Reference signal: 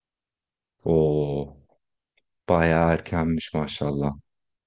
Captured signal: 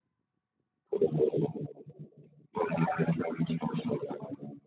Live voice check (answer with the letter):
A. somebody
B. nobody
B